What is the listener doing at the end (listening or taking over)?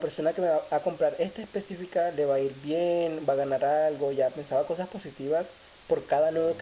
listening